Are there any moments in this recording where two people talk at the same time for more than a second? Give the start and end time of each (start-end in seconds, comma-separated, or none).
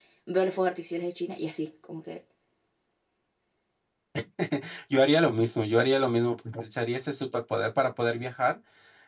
none